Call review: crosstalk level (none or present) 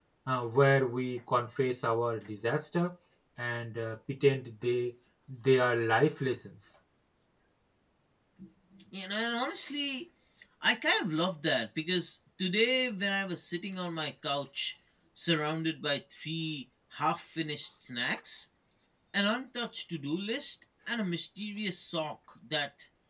none